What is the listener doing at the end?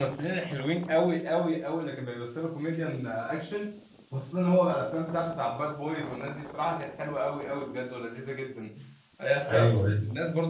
listening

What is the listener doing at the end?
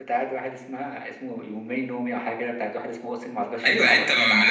taking over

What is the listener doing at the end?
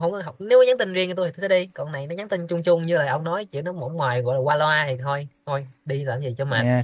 taking over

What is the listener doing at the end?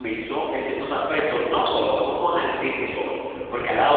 listening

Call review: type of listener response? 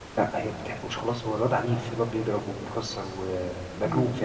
taking over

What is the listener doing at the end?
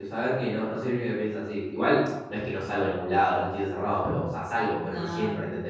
listening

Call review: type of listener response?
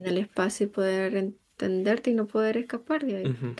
taking over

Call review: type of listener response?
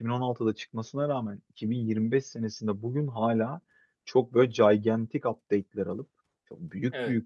listening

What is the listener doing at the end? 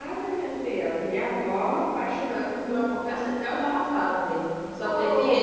taking over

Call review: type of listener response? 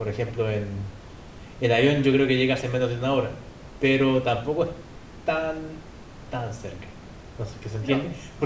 listening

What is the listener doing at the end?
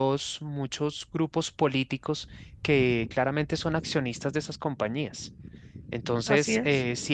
listening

